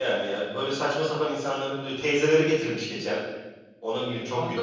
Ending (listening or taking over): taking over